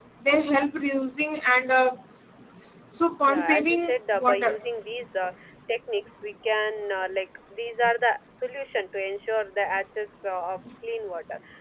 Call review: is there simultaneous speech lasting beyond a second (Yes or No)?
Yes